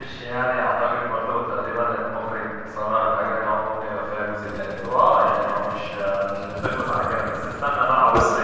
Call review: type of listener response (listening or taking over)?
listening